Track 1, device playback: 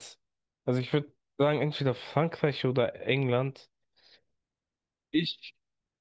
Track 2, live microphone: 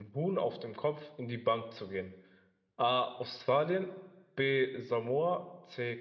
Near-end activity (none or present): present